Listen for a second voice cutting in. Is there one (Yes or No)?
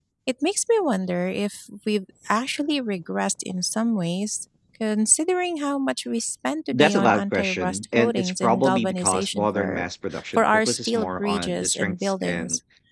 Yes